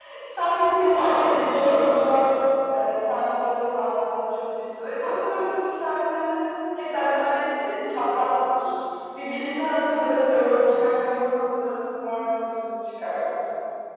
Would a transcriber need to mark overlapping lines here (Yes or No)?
Yes